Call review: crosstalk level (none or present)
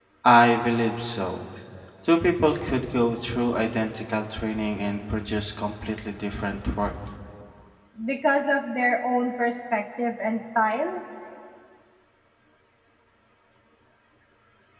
none